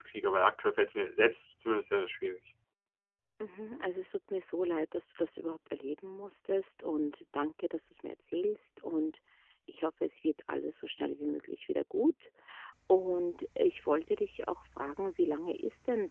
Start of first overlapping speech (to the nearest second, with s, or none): none